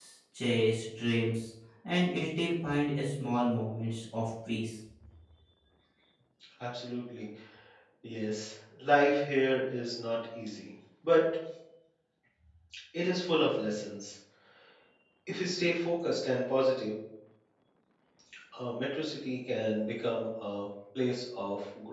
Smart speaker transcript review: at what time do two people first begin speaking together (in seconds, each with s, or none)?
none